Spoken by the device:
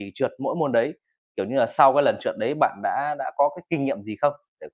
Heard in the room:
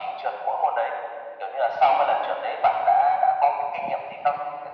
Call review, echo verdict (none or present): present